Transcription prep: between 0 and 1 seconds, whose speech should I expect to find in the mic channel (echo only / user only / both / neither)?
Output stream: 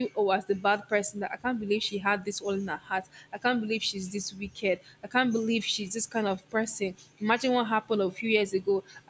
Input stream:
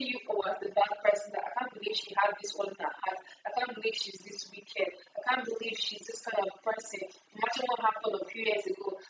echo only